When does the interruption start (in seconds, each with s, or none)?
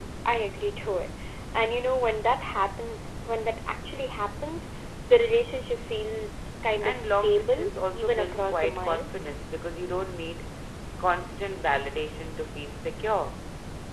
6.8 s